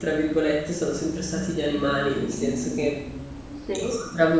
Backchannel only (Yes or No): Yes